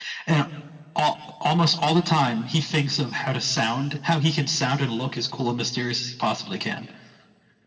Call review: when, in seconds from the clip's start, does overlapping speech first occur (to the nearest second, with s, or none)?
none